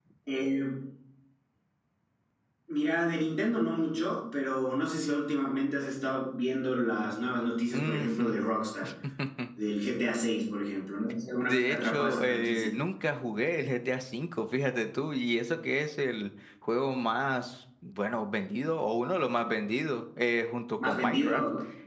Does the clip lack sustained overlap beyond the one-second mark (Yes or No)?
No